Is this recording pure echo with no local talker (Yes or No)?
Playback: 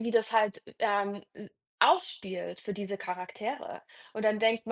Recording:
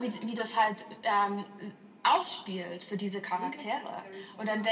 No